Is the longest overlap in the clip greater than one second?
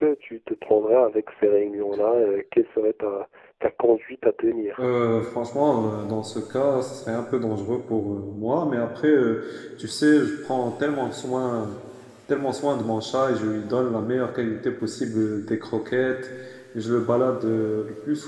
No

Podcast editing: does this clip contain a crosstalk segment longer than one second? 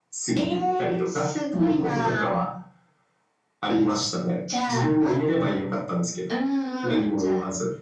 Yes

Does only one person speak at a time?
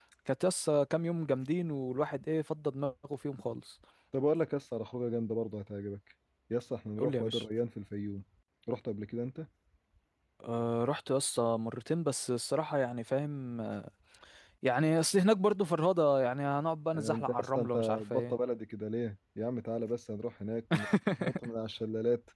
No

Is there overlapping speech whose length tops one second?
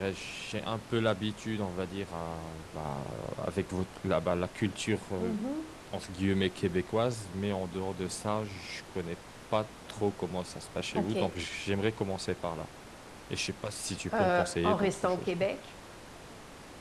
Yes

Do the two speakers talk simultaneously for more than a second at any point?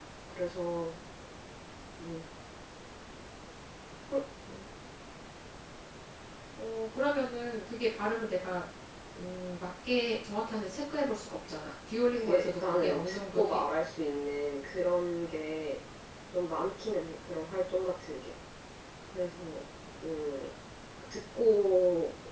Yes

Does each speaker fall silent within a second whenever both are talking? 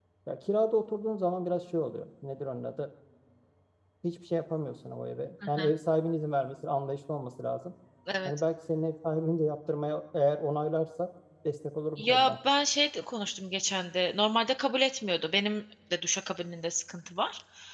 Yes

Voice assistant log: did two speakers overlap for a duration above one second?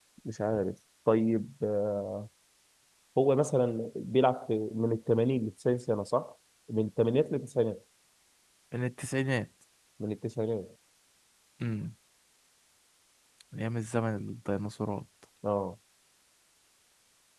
No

